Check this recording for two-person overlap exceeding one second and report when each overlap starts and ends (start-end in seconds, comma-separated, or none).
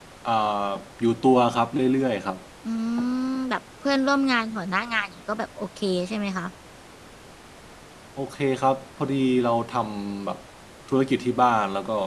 none